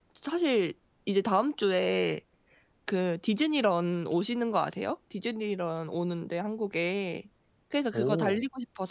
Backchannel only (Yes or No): Yes